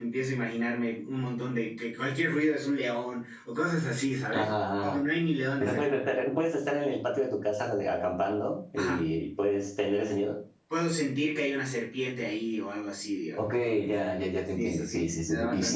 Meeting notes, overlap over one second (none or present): present